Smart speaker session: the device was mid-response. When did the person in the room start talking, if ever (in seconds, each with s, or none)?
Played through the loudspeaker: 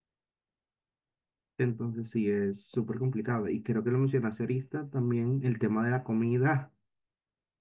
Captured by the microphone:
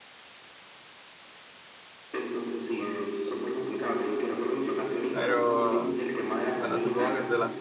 5.1 s